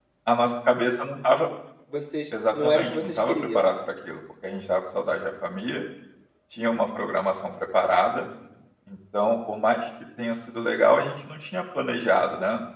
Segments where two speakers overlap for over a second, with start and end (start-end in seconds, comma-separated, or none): 2.5-3.8